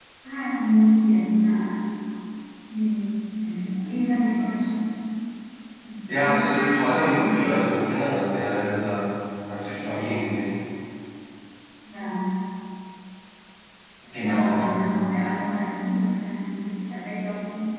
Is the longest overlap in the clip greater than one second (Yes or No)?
Yes